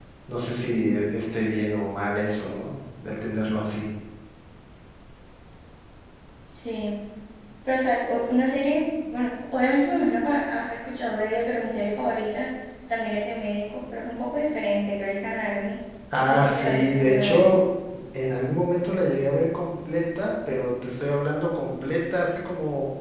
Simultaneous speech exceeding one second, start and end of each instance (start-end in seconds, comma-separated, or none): 16.2-17.5